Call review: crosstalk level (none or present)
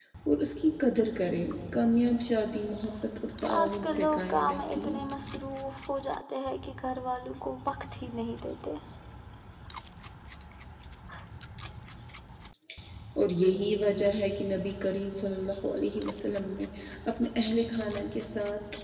present